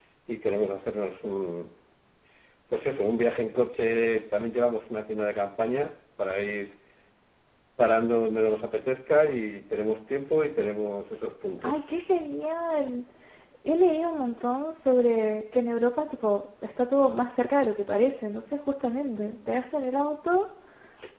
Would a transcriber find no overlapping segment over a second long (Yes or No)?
Yes